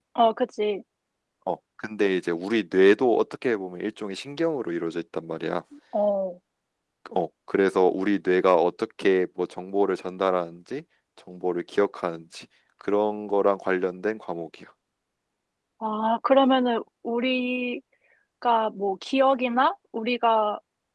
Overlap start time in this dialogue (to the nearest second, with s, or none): none